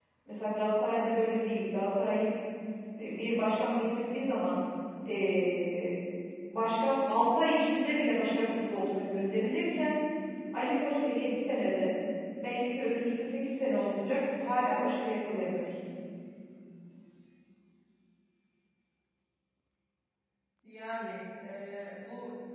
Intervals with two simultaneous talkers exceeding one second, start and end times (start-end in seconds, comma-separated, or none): none